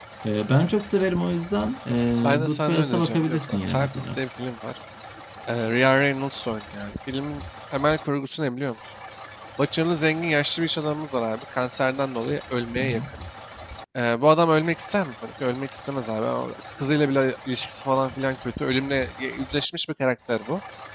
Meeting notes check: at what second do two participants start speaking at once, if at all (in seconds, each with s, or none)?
2.2 s